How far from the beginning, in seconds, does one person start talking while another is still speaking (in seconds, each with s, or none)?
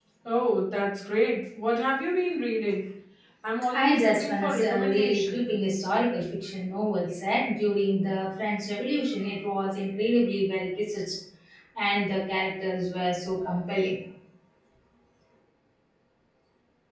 3.7 s